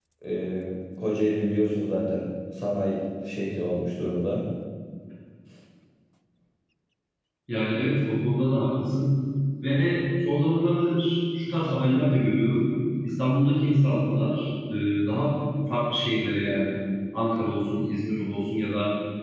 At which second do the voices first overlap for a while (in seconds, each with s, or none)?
none